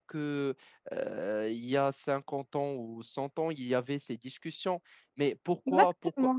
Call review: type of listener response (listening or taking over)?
listening